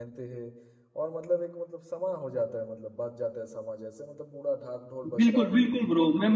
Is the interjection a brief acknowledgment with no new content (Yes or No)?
No